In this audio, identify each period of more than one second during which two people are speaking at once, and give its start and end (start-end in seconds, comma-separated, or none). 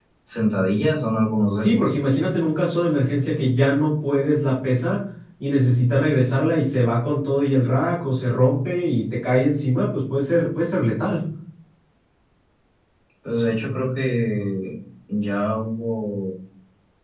none